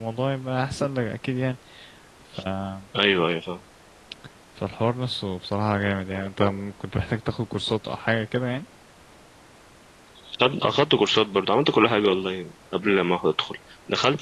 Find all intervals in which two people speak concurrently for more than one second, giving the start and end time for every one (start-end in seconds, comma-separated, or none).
none